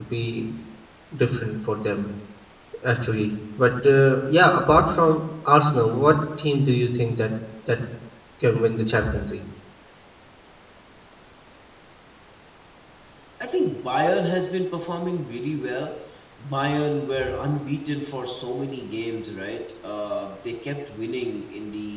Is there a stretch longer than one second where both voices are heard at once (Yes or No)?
No